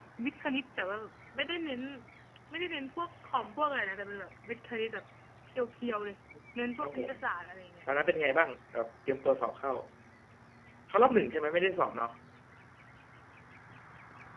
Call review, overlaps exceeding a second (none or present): none